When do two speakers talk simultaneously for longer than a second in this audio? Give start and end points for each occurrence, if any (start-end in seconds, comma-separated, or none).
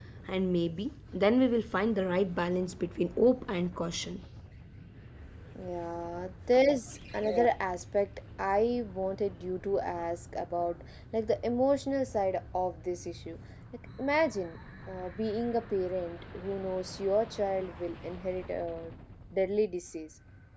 none